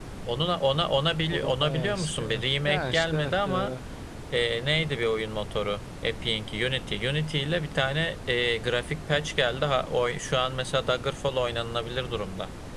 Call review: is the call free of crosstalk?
No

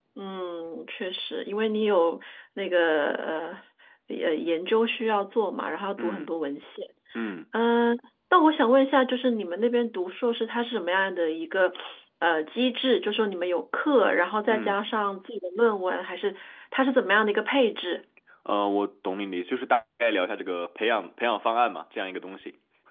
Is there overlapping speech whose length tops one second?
No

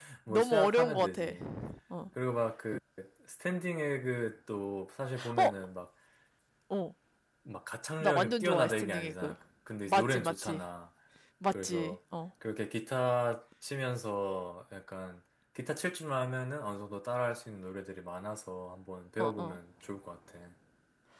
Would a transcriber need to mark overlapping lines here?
Yes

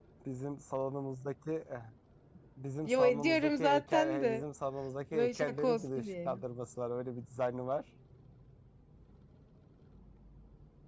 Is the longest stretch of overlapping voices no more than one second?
No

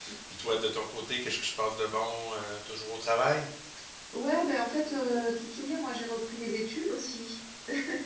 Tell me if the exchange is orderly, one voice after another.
Yes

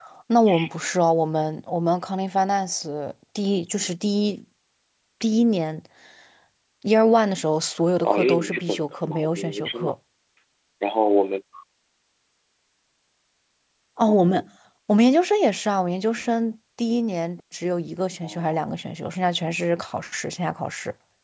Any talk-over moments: Yes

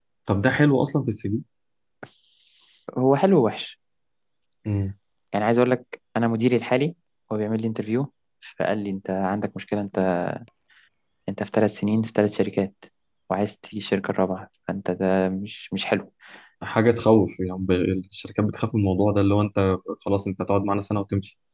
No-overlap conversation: Yes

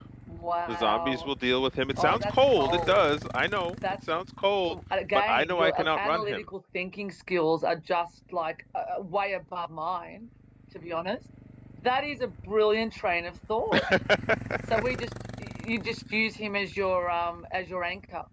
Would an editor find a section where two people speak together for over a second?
Yes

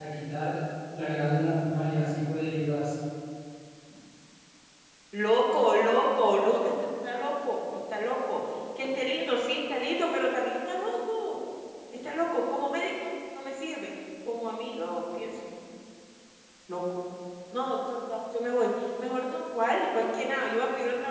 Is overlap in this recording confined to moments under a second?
Yes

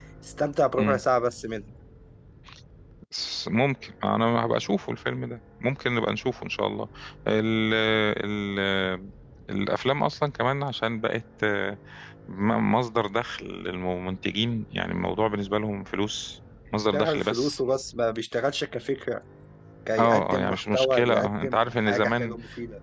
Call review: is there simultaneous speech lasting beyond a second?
Yes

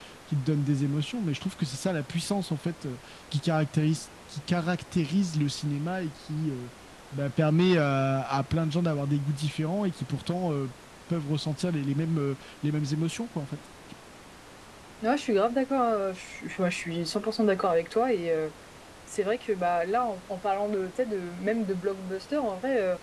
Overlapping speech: No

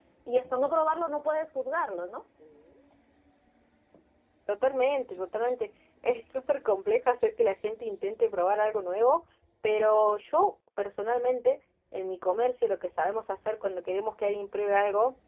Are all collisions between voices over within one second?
Yes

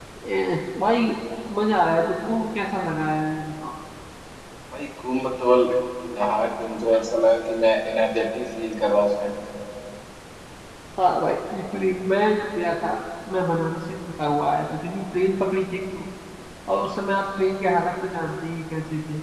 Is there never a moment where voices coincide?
Yes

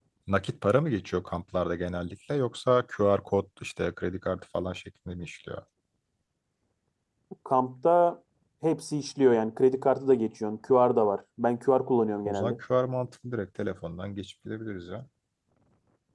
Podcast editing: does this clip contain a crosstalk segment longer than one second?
No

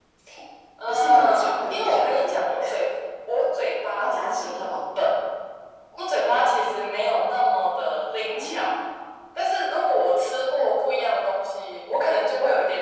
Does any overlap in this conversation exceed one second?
Yes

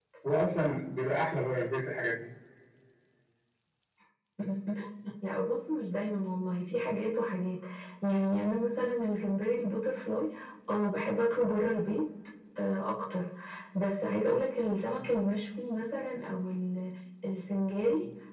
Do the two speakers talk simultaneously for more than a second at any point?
No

